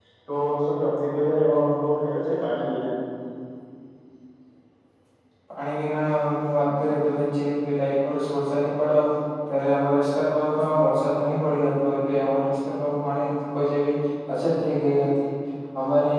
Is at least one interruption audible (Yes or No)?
No